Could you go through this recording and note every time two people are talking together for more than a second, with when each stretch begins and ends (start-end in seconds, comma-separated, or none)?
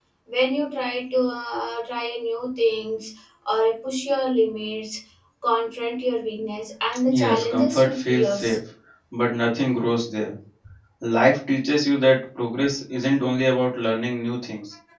7.1-8.6